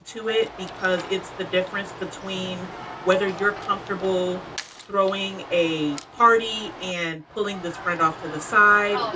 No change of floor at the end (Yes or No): No